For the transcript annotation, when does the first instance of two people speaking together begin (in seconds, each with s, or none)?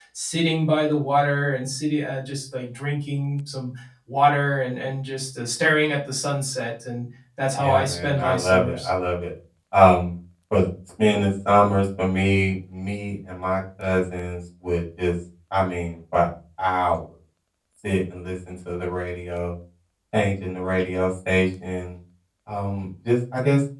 7.6 s